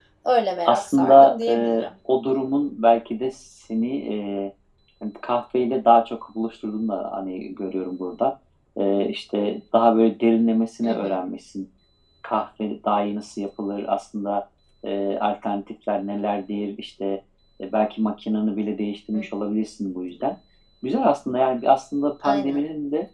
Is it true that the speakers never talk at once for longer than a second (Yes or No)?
No